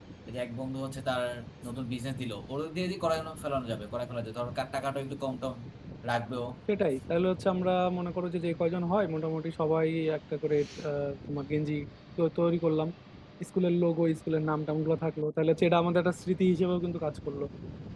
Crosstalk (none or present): none